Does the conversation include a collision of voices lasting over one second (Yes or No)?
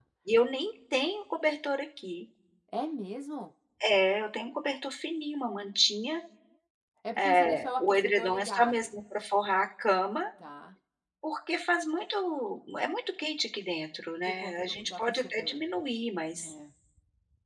Yes